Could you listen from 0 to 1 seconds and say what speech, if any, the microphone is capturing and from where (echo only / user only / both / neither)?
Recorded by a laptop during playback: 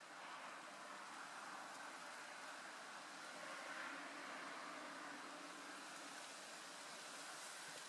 neither